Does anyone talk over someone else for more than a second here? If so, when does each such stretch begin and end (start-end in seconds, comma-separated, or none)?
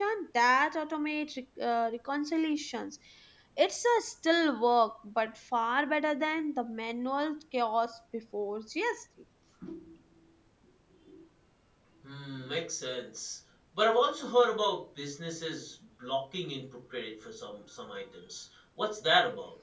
none